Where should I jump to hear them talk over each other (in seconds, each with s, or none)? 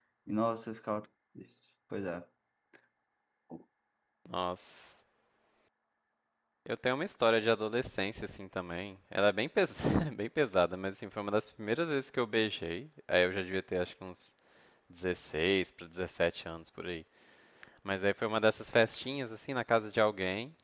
none